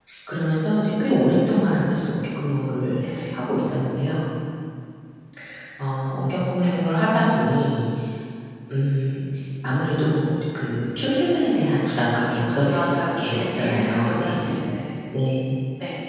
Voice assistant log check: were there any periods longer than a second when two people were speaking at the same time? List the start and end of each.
12.7-14.5

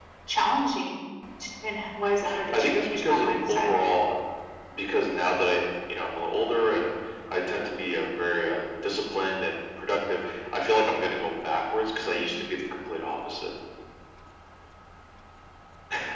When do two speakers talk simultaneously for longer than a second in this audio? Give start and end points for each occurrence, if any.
2.5-3.7

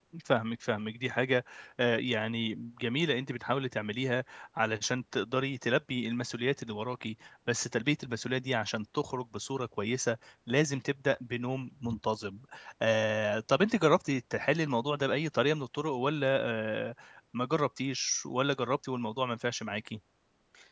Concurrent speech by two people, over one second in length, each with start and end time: none

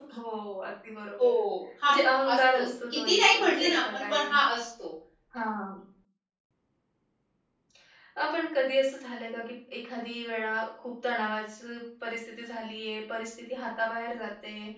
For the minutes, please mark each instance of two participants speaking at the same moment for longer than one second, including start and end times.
2.3-4.3

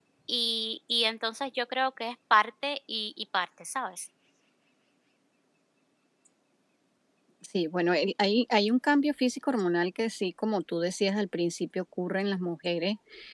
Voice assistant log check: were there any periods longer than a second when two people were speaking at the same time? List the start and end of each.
none

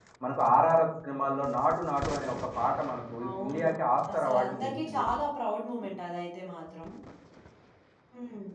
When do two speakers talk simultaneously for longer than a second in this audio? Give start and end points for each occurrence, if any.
3.4-5.0

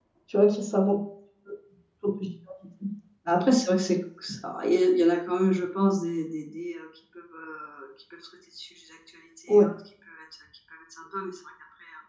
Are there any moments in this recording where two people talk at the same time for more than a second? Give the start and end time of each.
none

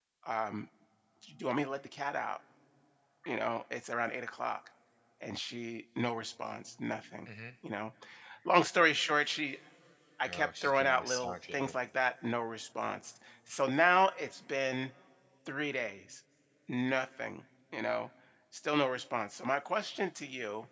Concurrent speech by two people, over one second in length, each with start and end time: 10.3-11.8

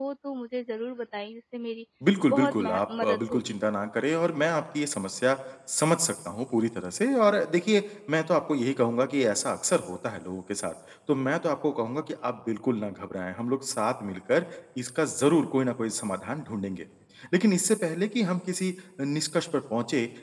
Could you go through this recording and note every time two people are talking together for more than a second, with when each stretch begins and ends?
2.3-3.6

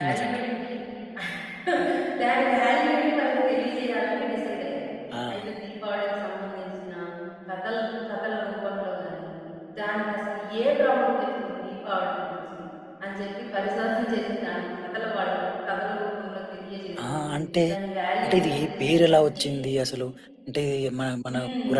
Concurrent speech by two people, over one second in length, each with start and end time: 18.2-19.4

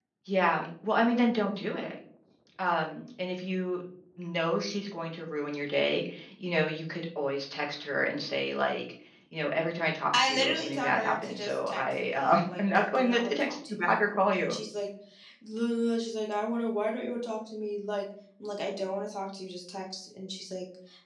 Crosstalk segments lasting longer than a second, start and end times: 10.1-14.6

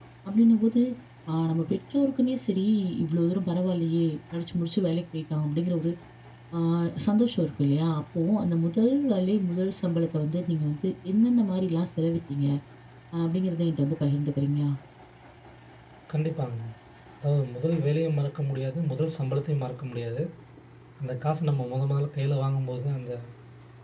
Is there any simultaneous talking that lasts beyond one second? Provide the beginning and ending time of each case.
none

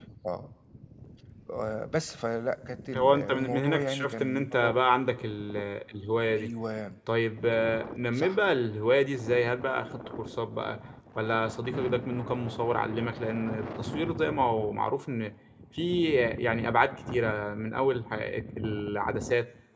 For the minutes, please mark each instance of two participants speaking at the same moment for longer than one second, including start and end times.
3.0-4.8

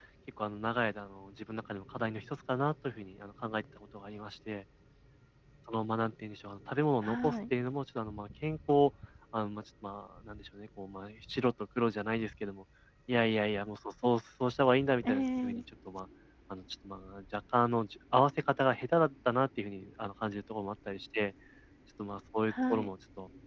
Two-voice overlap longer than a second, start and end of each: none

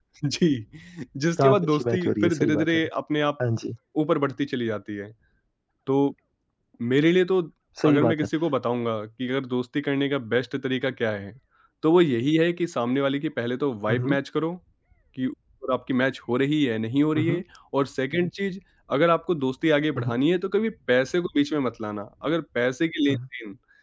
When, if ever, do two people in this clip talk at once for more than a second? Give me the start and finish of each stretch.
1.4-2.8

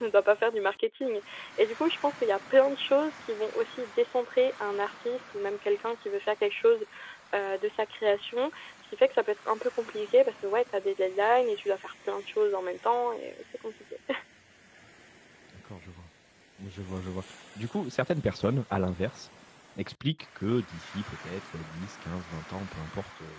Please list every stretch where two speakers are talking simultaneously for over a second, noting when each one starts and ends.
none

